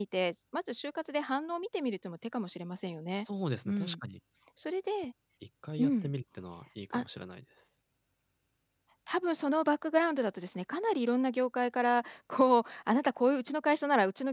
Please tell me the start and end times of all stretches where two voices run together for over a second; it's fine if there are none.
none

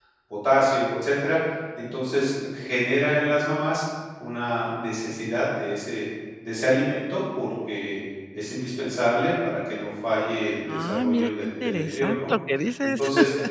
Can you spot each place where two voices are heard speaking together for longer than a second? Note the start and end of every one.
10.7-12.3

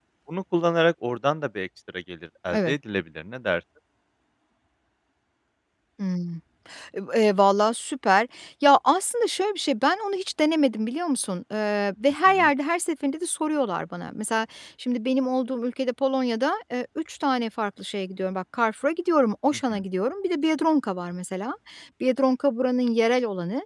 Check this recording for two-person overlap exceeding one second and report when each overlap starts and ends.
none

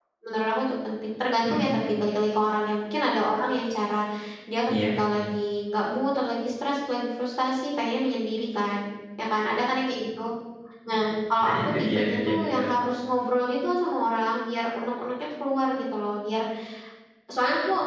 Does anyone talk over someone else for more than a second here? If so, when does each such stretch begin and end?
11.4-12.7

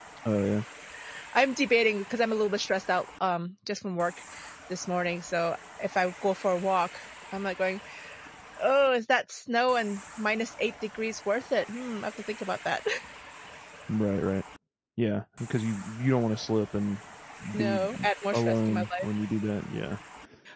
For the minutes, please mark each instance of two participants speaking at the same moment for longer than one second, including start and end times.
17.6-19.1

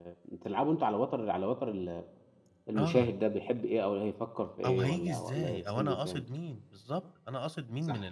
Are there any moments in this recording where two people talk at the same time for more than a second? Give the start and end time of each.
4.7-6.2

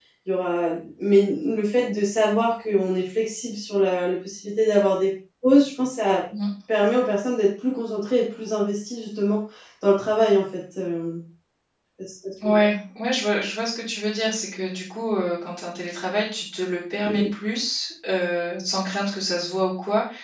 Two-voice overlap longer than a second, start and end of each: none

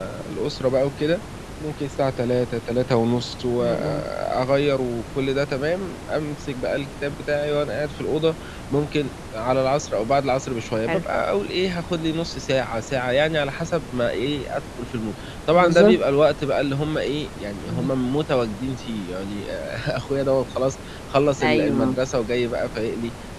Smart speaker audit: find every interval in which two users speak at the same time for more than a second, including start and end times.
none

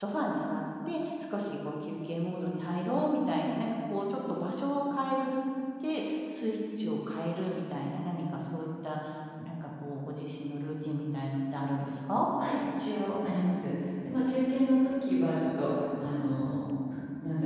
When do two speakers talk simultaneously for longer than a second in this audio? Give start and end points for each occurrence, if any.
none

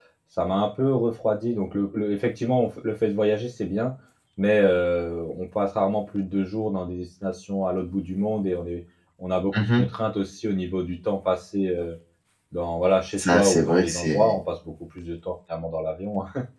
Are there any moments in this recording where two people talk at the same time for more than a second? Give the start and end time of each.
13.2-14.4

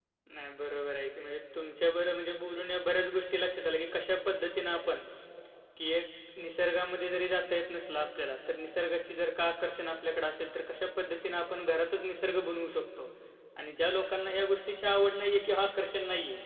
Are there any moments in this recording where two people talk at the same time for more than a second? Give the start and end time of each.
none

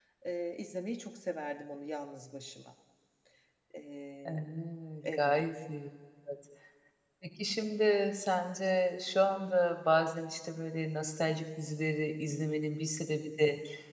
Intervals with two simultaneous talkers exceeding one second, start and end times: none

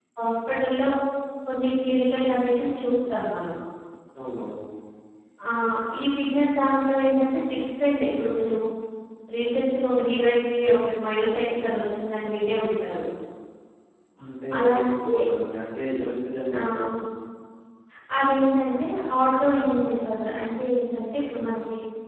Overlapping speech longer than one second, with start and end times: none

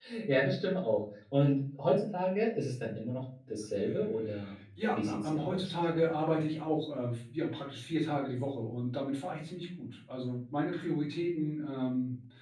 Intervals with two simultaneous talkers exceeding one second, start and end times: 4.9-6.1

